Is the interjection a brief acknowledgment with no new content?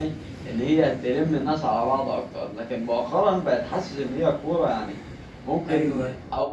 Yes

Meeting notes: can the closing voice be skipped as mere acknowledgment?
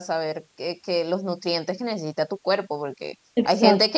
Yes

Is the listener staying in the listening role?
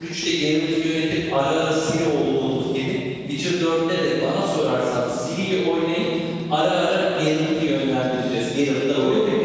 No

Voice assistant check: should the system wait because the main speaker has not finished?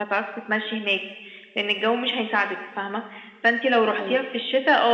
Yes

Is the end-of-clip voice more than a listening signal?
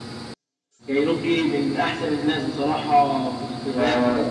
Yes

